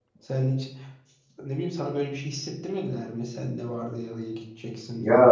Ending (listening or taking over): taking over